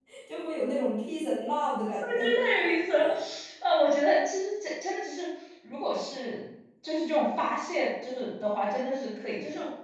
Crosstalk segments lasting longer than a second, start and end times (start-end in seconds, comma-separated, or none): none